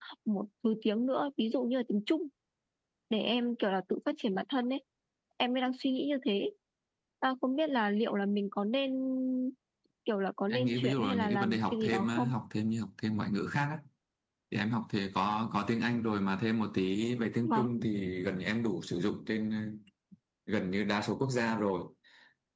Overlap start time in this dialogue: 10.5 s

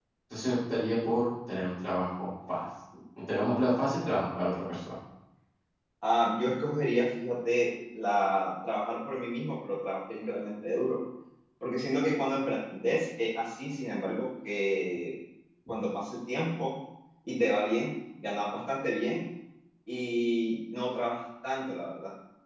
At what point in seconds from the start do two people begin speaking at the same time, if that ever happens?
none

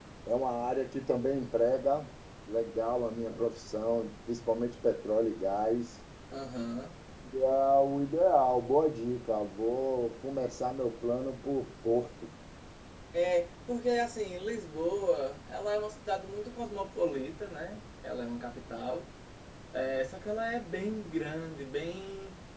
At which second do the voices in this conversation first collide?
none

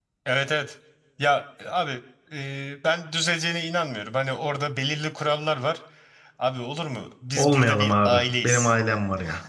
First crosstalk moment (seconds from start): 7.4 s

